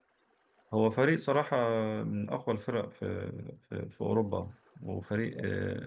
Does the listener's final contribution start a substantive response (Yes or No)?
No